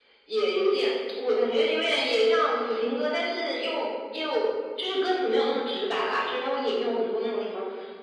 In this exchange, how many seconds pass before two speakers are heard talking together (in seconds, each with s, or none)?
none